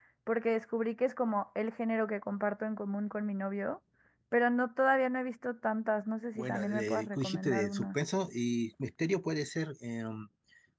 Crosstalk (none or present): present